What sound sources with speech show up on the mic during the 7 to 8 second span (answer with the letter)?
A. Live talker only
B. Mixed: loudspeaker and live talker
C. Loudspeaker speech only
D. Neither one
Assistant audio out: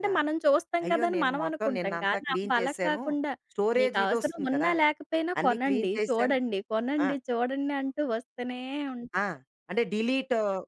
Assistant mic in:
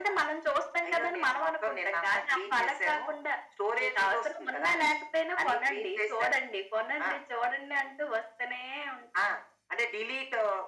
C